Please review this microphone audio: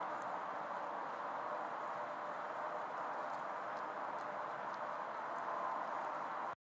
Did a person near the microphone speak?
No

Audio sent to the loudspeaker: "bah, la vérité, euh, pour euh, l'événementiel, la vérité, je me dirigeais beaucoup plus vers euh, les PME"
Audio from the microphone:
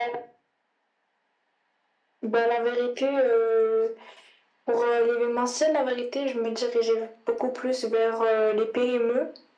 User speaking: No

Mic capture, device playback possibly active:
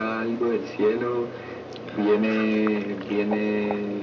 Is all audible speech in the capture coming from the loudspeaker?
Yes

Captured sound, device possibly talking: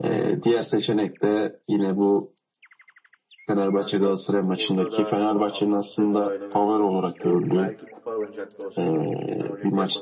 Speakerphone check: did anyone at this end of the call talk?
Yes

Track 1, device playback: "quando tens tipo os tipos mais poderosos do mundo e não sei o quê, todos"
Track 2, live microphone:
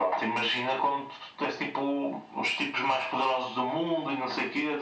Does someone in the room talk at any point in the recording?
No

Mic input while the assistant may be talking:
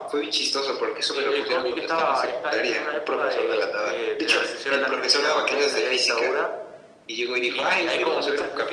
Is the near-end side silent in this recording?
Yes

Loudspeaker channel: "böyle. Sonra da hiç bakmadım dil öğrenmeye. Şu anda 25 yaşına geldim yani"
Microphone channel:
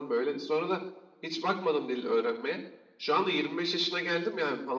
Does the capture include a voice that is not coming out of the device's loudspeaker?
No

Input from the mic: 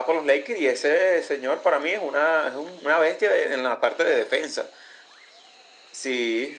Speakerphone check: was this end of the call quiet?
Yes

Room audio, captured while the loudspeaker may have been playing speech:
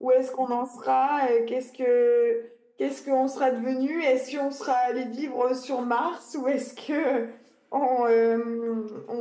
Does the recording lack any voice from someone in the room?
Yes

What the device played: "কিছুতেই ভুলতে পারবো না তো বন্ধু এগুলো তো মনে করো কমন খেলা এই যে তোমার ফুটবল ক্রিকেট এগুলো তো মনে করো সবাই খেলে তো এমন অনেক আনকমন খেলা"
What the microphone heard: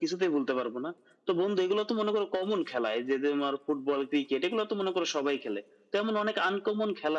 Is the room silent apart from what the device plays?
Yes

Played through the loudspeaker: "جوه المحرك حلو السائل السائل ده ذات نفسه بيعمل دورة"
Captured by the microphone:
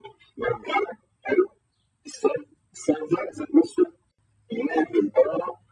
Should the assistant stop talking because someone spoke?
No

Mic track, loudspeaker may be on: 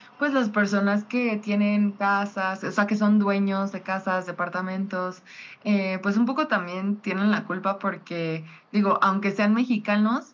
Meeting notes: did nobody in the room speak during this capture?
Yes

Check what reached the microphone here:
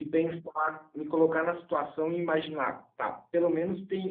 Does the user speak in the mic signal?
Yes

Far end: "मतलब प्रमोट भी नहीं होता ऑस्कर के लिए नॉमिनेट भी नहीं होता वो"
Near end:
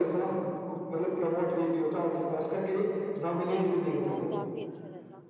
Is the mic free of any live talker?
No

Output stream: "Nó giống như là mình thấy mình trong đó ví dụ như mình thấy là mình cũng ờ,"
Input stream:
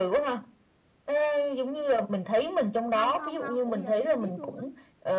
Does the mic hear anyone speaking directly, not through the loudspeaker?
Yes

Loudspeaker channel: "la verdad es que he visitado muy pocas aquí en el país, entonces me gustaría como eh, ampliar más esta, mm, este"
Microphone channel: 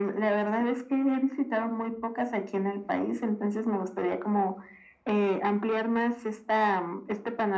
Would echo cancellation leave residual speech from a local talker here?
No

